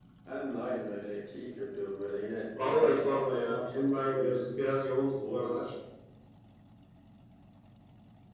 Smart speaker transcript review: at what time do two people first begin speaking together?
2.5 s

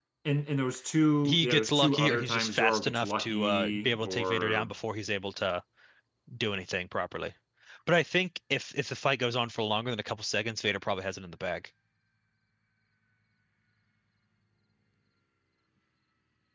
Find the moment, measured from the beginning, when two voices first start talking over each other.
1.2 s

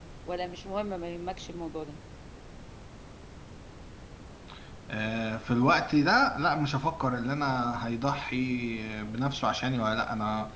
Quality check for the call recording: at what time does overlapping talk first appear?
none

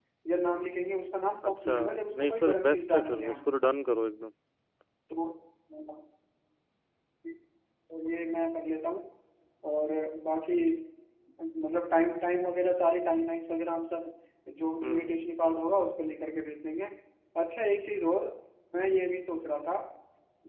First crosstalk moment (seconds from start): 1.5 s

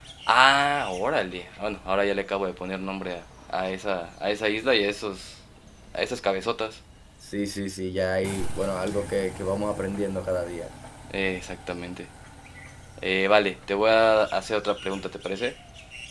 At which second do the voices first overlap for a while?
none

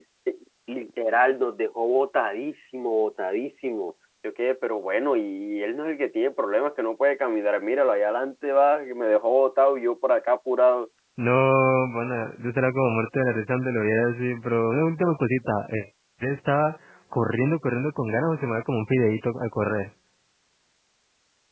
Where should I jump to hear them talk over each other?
none

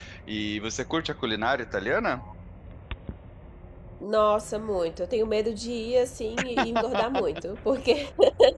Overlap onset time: none

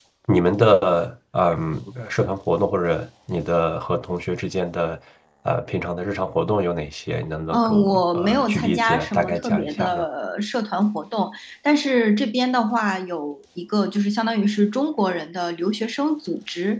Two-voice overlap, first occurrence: 7.5 s

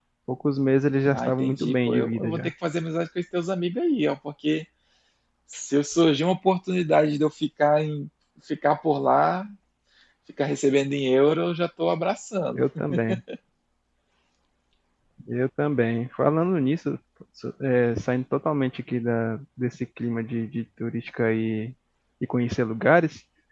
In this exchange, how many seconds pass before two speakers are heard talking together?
1.1 s

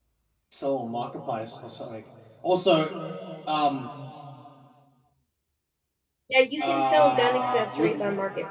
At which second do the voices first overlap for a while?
6.7 s

